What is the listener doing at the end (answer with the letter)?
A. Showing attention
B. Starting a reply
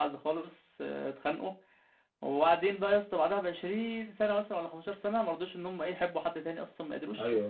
A